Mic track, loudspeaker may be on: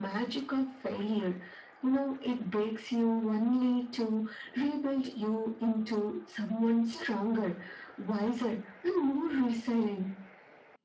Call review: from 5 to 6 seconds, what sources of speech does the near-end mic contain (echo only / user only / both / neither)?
echo only